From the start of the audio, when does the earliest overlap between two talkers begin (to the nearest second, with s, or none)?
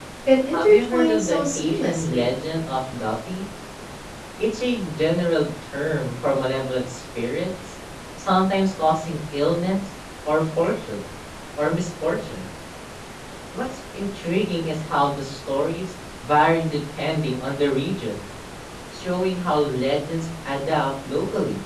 1 s